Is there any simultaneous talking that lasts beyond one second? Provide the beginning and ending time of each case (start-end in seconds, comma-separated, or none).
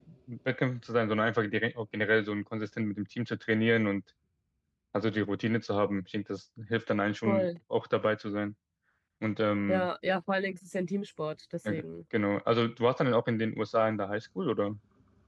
none